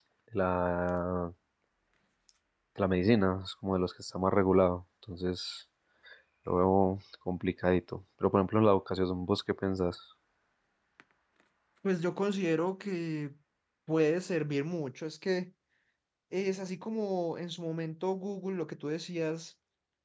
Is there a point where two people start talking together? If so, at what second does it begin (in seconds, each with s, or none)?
none